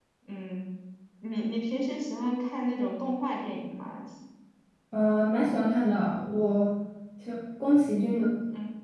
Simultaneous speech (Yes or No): No